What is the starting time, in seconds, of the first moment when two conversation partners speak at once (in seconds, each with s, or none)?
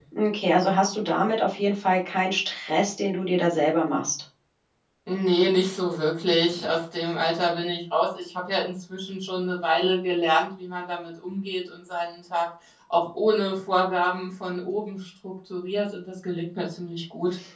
none